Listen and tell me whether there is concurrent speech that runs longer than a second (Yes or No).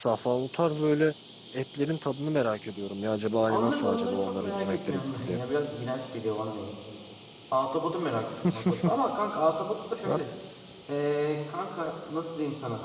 Yes